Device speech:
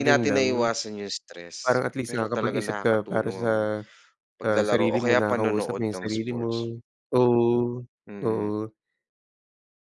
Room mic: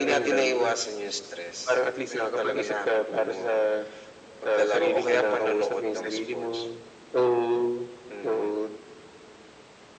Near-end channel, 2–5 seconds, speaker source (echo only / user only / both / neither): echo only